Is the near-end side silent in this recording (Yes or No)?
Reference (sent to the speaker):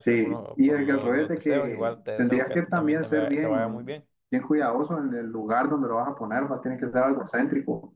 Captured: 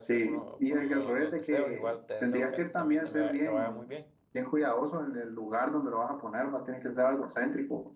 Yes